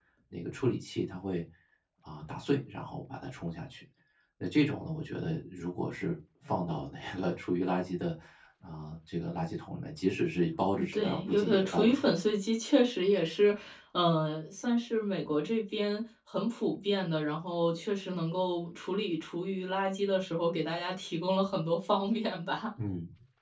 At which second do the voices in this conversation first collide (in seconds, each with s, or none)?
10.8 s